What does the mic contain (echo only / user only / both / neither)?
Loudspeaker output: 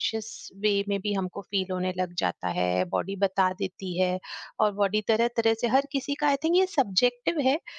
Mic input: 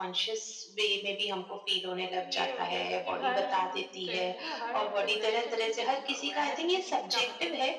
both